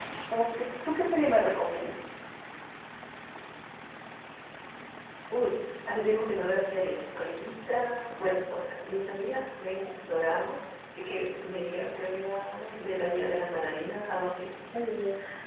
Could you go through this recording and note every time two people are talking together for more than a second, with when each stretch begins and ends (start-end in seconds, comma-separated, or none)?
none